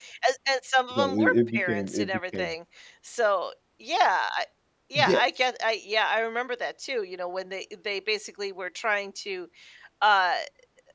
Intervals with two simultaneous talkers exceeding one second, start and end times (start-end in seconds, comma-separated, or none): 0.9-2.5